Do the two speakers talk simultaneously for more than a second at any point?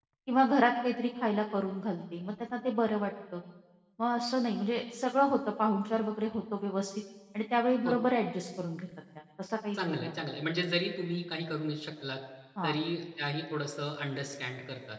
No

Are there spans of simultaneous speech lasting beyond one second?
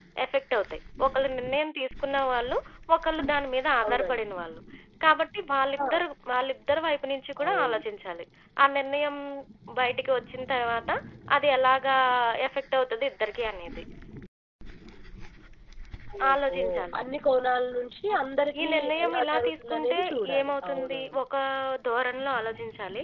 Yes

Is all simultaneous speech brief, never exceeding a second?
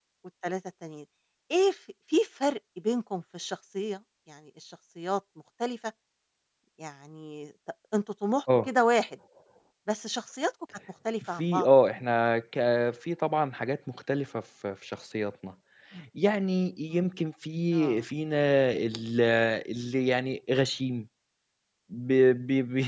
Yes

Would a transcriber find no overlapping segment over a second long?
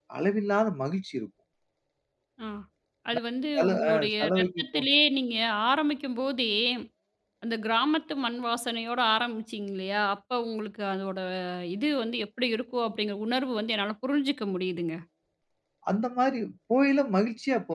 No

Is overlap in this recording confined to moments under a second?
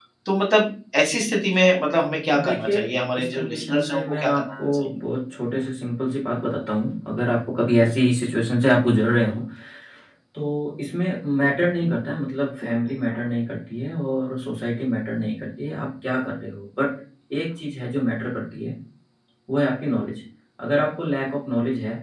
No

